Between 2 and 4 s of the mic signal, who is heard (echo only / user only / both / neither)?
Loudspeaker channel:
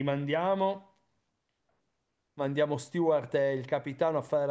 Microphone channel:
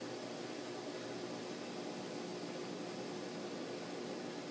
neither